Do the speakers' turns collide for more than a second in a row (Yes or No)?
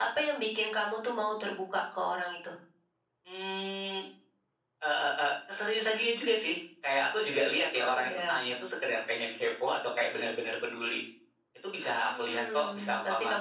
Yes